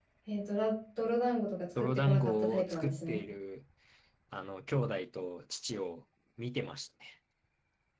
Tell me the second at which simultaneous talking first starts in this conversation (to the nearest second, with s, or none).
2 s